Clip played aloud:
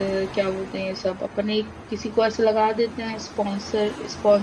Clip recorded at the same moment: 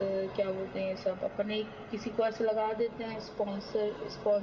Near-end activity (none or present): none